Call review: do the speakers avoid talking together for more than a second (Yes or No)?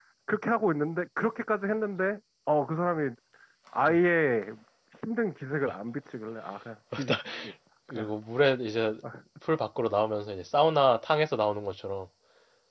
Yes